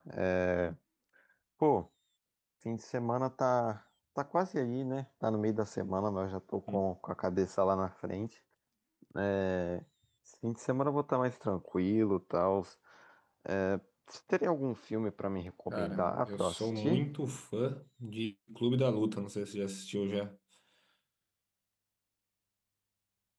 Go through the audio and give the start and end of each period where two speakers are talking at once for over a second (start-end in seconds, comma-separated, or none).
15.7-17.1